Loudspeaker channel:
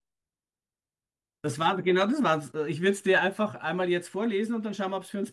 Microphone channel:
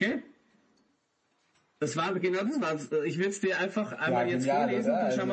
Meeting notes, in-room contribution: present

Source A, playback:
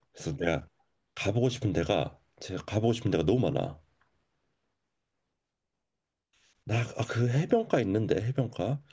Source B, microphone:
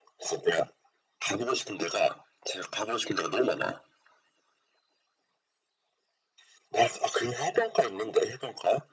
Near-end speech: none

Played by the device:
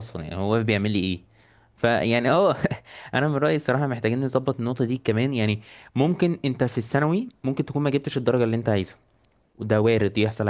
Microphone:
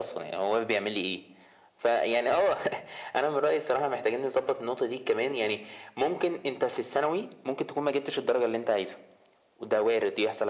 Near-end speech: none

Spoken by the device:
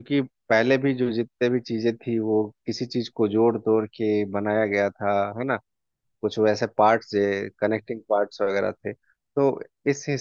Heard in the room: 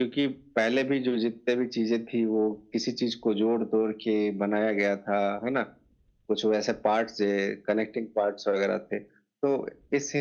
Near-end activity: none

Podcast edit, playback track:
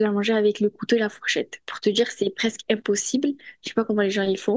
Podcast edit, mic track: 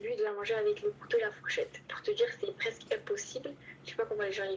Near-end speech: none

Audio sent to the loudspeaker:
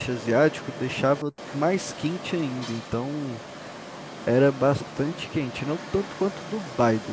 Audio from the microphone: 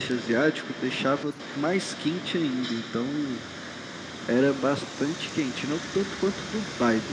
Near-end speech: none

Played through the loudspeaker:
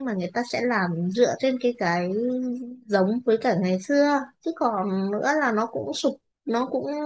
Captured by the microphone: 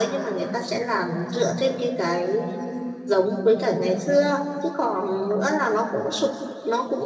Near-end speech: none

